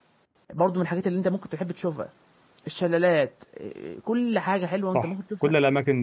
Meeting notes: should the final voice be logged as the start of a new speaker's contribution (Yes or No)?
Yes